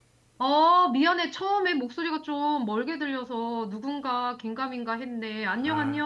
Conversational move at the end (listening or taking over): taking over